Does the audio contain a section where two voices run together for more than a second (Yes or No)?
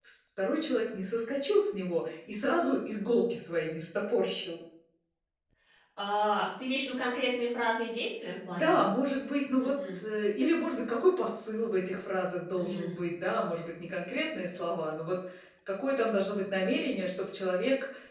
No